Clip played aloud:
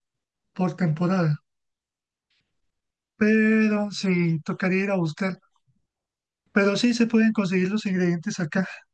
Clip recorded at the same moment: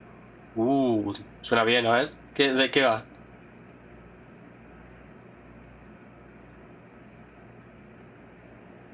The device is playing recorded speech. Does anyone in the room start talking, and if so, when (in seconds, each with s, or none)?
0.5 s